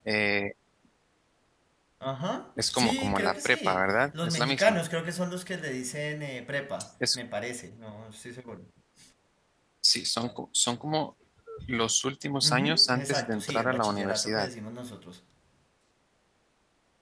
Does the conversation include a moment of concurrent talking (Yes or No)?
Yes